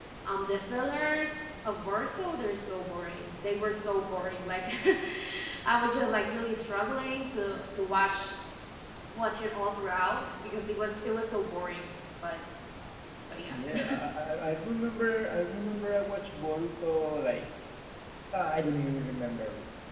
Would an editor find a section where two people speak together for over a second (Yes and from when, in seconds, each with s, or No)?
No